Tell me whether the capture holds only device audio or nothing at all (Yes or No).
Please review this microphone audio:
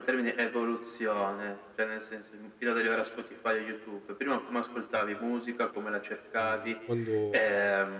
No